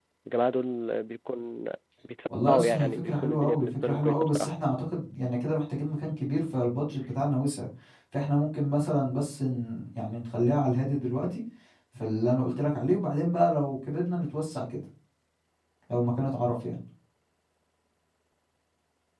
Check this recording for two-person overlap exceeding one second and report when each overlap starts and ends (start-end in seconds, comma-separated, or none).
2.5-4.5